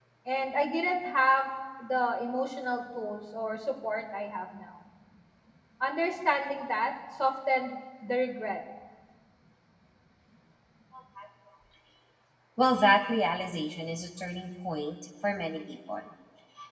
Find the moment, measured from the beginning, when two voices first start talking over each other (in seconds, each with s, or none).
none